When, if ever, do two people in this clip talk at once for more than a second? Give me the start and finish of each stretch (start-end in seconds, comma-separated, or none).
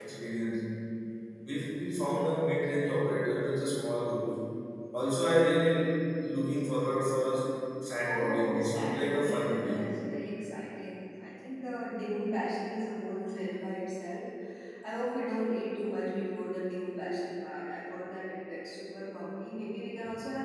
8.1-9.8